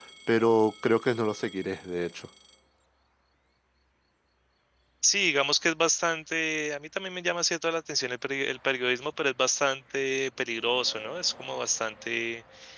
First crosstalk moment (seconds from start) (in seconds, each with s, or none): none